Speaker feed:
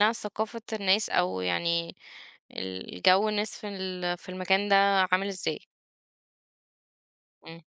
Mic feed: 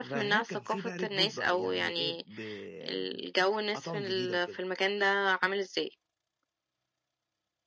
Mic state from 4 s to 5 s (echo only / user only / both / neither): both